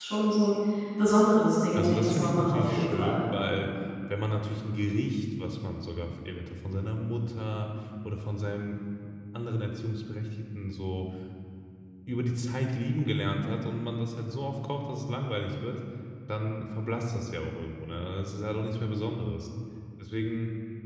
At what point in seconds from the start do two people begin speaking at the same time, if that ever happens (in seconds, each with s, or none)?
1.8 s